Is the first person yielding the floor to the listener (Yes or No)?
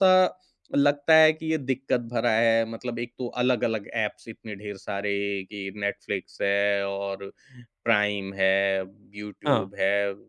No